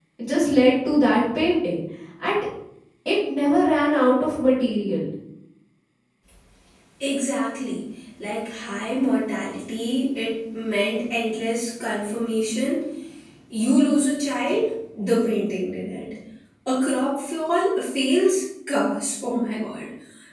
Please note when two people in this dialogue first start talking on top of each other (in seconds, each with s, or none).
none